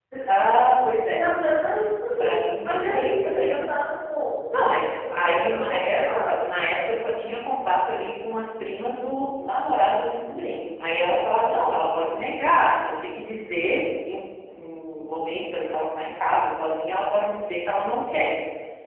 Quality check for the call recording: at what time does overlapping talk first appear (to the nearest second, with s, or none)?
2 s